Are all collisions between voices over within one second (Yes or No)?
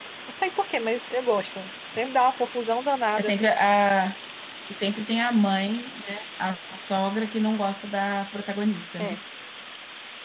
Yes